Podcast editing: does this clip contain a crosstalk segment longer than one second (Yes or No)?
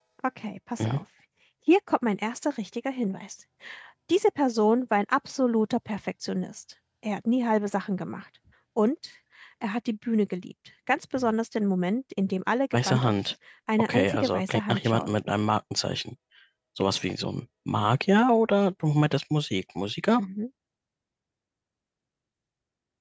Yes